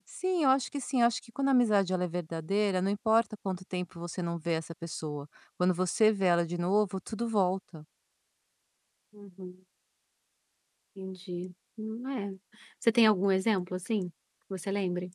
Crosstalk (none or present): none